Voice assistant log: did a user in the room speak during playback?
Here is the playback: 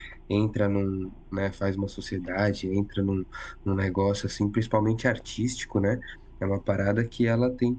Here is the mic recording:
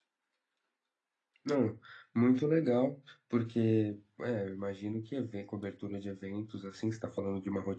Yes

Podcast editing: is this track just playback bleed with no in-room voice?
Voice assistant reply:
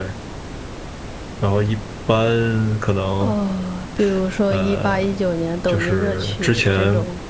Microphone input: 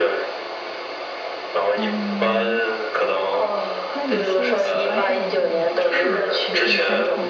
No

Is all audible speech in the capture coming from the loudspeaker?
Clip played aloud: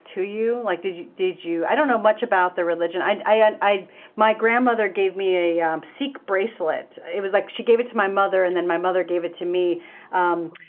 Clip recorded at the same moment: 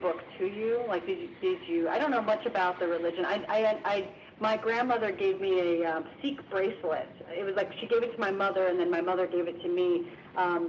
Yes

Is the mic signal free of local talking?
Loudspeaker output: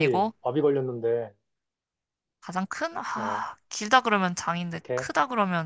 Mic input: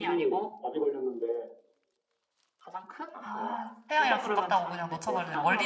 No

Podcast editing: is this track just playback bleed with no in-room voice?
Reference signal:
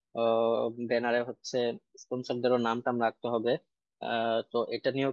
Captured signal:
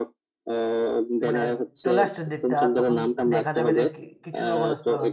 No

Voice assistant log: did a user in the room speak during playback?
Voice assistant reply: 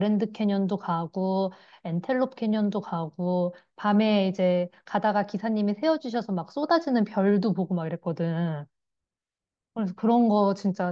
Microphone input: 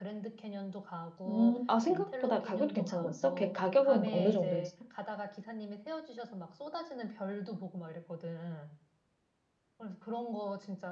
Yes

